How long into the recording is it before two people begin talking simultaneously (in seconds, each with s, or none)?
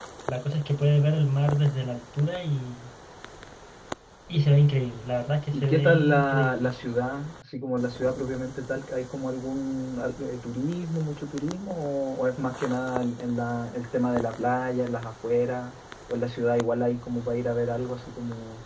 5.5 s